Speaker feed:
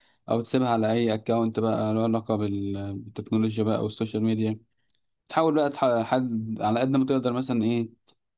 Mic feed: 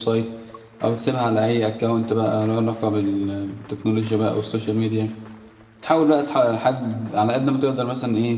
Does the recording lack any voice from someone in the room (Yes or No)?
Yes